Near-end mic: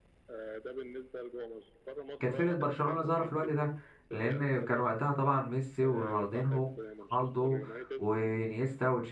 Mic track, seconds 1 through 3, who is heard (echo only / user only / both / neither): both